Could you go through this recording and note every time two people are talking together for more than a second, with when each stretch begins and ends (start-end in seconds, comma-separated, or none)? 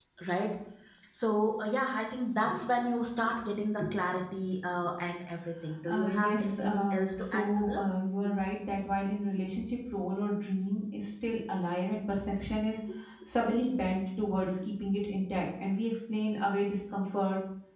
5.9-7.9